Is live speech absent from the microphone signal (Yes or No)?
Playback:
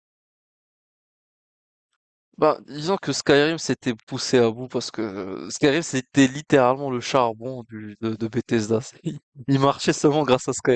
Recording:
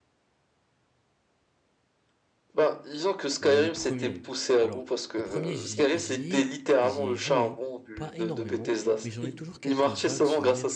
No